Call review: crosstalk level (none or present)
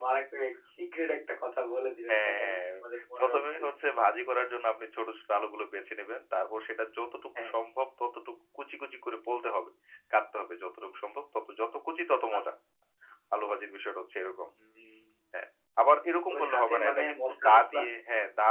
present